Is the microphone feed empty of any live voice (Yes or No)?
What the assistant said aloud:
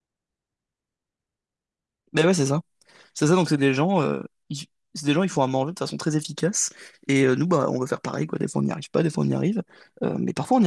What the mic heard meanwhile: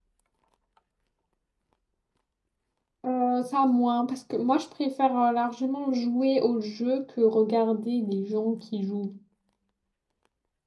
No